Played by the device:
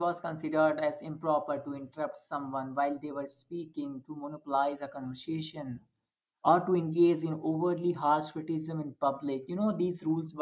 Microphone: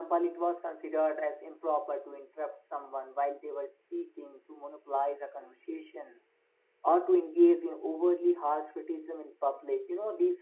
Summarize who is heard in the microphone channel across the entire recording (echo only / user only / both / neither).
echo only